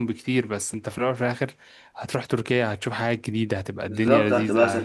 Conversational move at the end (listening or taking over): taking over